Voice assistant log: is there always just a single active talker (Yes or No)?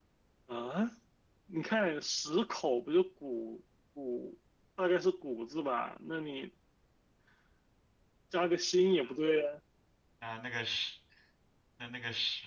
Yes